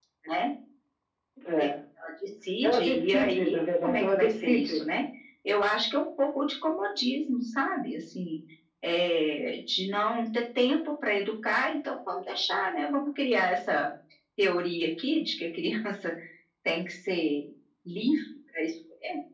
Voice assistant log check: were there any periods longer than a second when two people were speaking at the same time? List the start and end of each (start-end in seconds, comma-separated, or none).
2.6-4.8